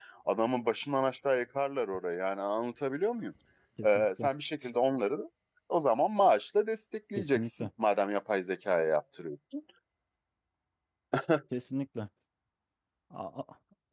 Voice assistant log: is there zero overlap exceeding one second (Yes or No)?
Yes